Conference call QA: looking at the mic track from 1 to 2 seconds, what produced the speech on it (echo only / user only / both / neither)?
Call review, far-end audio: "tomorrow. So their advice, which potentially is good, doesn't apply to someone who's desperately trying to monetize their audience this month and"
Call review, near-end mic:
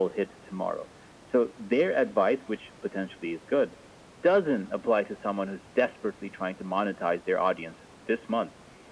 echo only